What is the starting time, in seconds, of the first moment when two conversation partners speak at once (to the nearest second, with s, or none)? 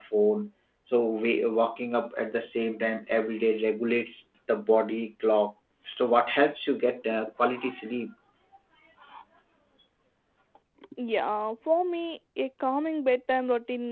none